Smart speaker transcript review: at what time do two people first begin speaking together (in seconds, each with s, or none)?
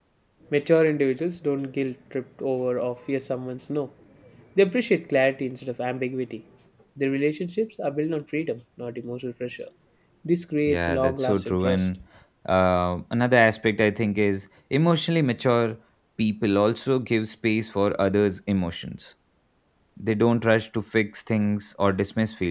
10.7 s